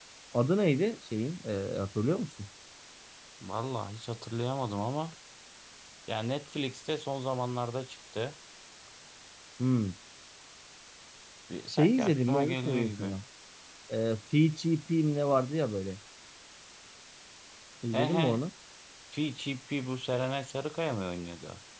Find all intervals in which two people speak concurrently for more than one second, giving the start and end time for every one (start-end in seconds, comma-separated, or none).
11.7-13.2